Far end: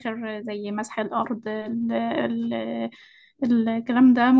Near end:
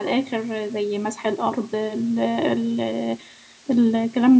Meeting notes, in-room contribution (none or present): none